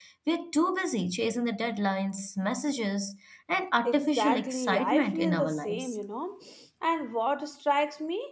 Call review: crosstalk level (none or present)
present